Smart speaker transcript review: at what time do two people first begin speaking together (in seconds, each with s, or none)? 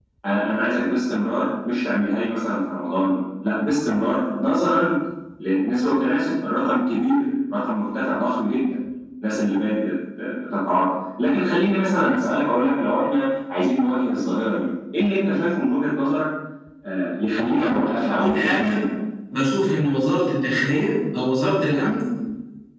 17.6 s